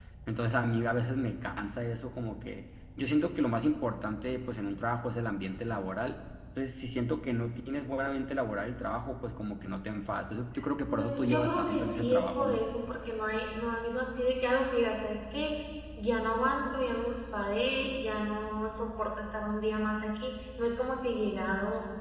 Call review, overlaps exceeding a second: present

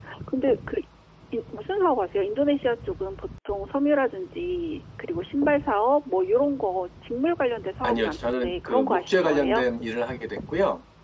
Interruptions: present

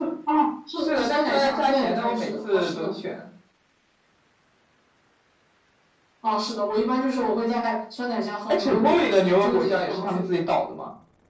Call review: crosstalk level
present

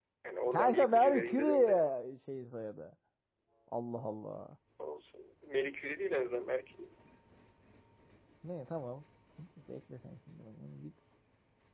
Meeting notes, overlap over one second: present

